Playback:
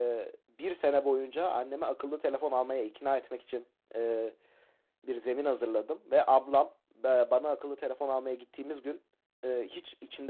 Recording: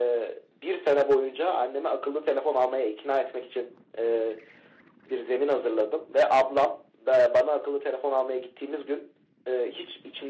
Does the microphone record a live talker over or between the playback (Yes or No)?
No